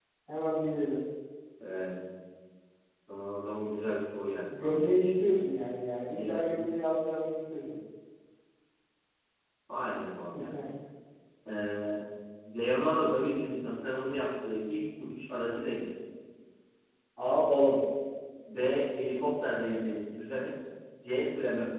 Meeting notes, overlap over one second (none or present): none